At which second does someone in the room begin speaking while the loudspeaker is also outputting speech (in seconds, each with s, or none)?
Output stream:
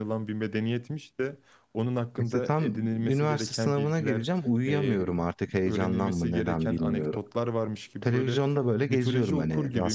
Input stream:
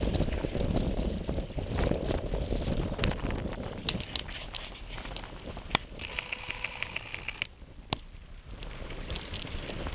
none